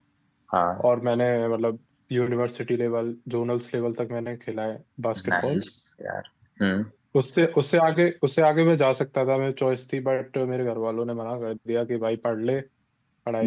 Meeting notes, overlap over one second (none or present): none